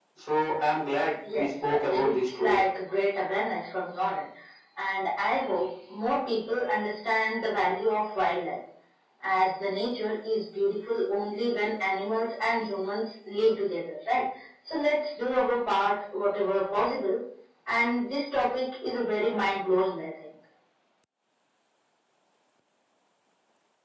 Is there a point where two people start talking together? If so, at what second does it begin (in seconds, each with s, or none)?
1.2 s